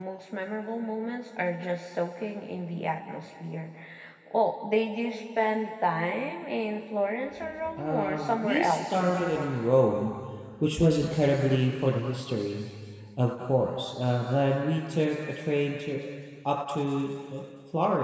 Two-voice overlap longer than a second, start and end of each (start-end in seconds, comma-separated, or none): 7.8-9.6